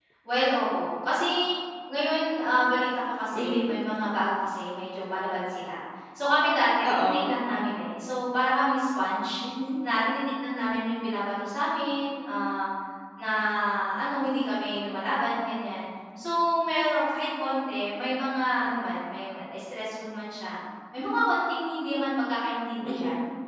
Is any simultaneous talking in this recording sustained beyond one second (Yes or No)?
No